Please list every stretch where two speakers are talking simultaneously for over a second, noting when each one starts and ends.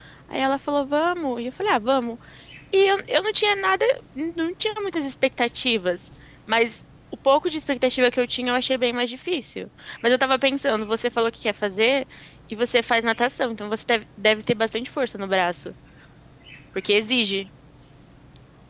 none

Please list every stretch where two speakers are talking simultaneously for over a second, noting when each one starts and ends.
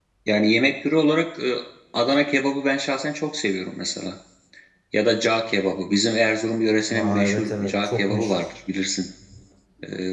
6.9-8.4

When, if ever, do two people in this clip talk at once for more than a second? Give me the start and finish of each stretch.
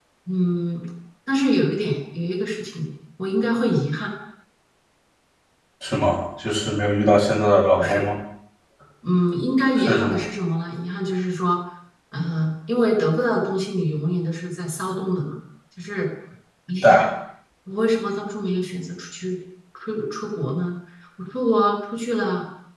none

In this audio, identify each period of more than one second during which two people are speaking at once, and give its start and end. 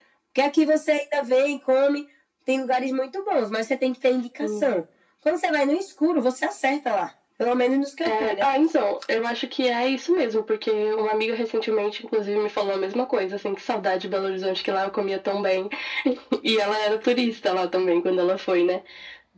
none

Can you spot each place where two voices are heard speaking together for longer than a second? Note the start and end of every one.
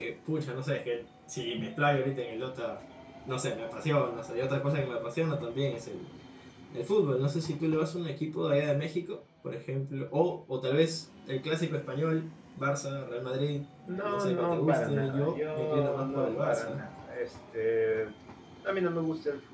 14.0-16.9

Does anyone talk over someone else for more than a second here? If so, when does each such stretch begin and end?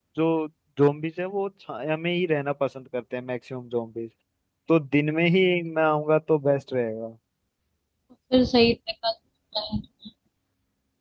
none

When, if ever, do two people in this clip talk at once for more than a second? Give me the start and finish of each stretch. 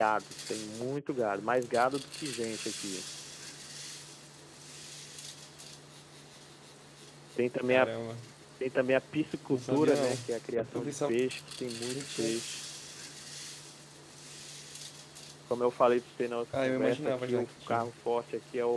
9.5-11.1, 16.6-17.9

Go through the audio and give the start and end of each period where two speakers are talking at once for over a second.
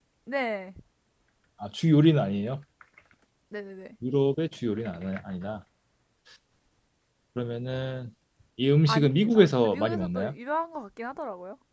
8.9-10.3

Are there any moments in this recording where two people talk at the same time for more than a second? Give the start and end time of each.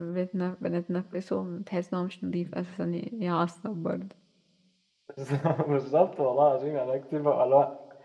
none

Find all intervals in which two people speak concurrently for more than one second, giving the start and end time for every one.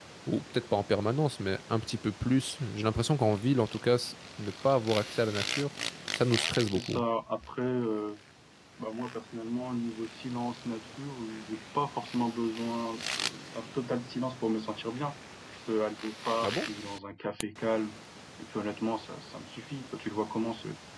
none

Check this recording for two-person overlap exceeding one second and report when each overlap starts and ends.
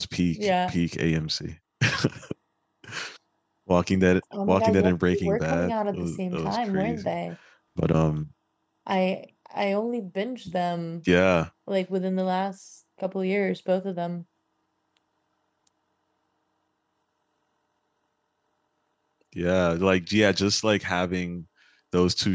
4.5-7.1

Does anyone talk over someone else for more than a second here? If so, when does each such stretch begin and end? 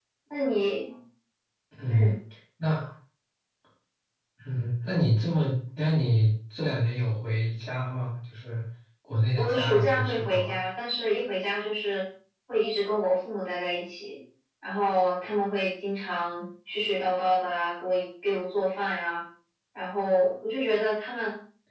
9.3-10.6

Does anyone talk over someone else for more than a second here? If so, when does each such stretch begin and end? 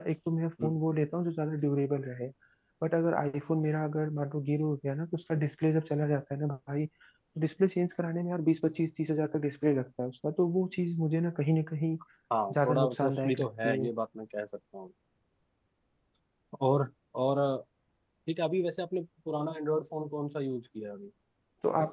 12.5-13.9

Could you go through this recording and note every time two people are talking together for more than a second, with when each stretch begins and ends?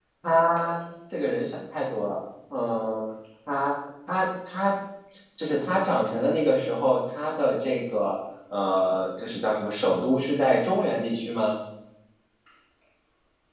none

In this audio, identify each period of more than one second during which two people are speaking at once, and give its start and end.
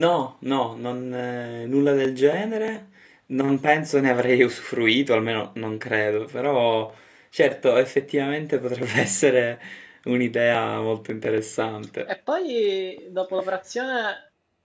none

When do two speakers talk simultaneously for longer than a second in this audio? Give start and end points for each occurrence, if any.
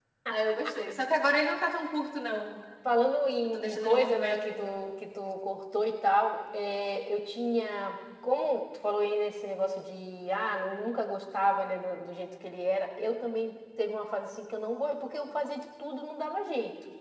3.4-4.8

